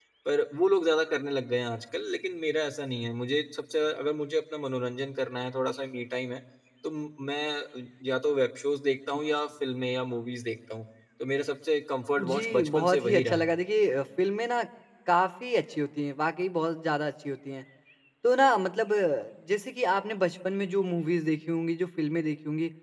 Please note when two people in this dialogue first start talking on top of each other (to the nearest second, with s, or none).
12 s